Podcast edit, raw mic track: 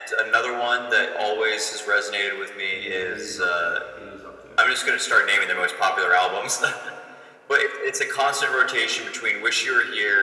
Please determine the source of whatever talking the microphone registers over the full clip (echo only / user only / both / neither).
both